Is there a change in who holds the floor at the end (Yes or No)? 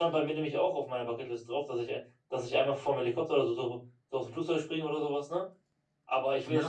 Yes